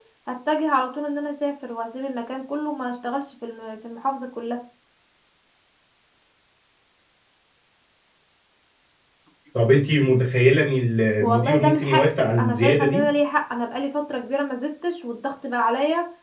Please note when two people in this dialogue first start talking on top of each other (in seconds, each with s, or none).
11.2 s